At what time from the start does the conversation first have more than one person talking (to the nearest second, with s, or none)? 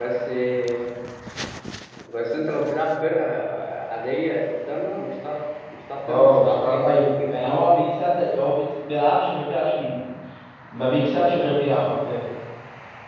6 s